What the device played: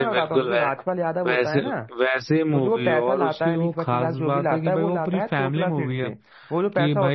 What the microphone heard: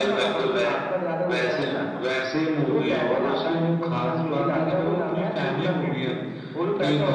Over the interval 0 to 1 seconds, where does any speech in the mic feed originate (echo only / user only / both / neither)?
echo only